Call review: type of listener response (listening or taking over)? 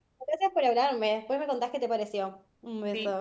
taking over